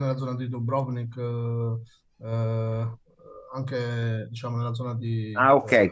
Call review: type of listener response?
taking over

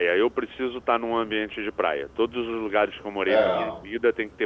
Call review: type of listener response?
listening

